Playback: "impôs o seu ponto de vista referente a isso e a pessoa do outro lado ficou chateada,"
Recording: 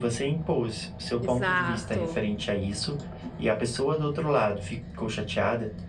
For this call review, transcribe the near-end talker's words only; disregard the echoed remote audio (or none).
Exato.